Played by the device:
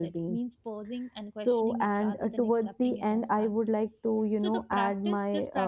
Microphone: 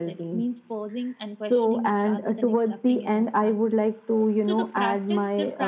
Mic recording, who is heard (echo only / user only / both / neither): echo only